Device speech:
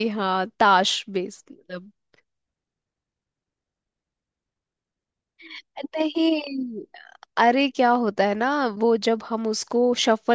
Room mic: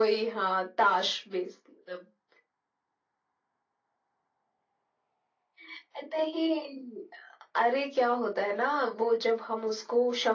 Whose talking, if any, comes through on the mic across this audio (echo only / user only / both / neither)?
echo only